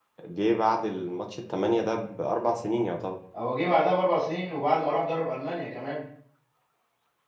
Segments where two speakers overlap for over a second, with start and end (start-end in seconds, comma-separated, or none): none